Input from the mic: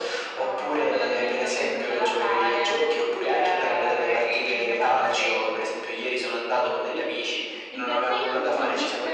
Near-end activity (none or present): present